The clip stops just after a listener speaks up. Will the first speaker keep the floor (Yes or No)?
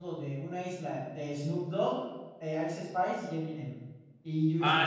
No